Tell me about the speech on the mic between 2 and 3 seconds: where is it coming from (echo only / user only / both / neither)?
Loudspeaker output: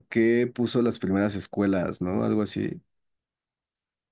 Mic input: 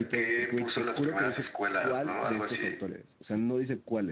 both